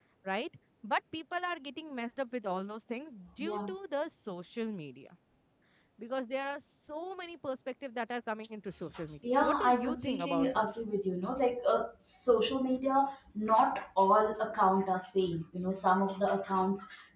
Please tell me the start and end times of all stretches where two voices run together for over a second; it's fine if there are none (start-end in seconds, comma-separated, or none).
9.2-10.7